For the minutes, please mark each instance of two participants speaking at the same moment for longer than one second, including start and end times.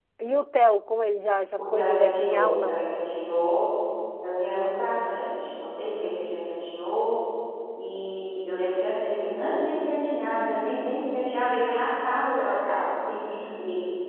1.6-2.8

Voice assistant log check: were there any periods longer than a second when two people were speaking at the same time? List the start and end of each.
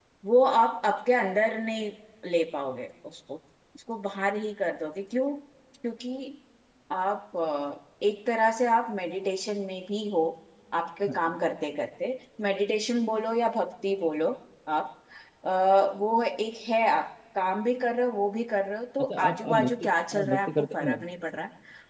19.0-21.0

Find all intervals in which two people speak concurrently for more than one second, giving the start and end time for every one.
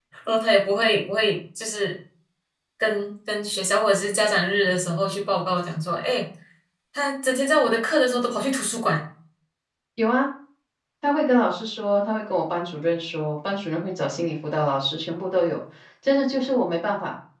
none

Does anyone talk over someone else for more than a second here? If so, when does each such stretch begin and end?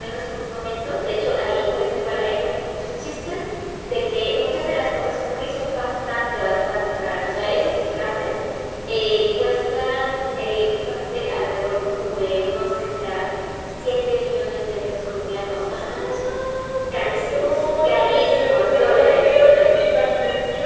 17.0-19.7

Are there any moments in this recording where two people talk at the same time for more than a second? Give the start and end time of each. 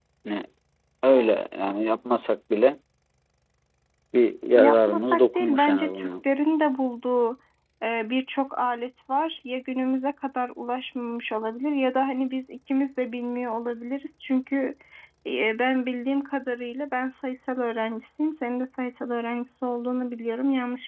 4.5-6.1

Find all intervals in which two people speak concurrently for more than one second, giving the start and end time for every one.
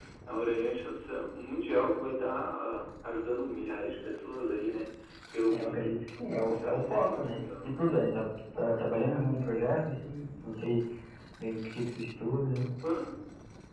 6.5-7.8

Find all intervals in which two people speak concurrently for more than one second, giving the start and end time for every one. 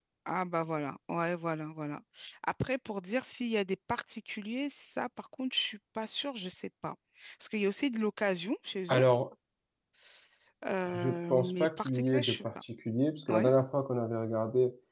10.9-12.4

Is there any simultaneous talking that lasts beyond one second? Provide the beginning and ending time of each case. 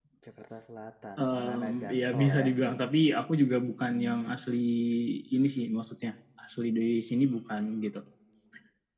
1.2-2.5

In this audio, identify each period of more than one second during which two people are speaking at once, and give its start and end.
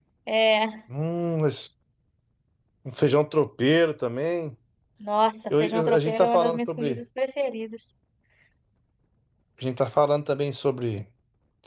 5.5-7.0

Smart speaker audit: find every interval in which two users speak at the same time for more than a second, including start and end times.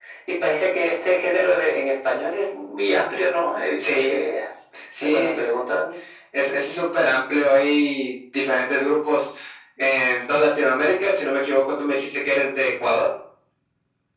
none

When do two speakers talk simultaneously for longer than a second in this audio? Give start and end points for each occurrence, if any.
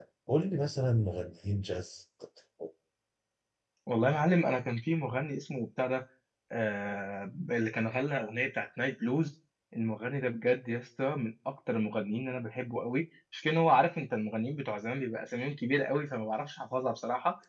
none

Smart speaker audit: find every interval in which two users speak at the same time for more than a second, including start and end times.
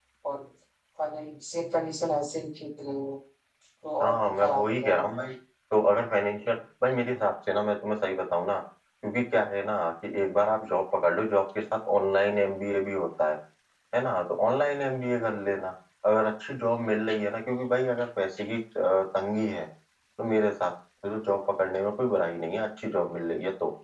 4.0-5.3

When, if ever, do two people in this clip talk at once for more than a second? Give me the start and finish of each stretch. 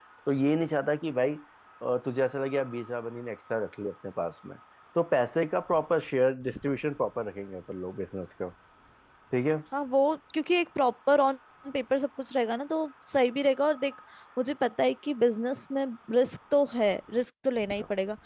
none

